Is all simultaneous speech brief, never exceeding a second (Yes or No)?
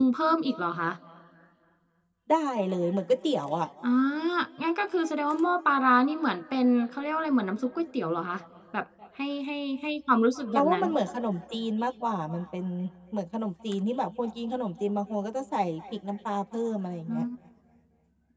Yes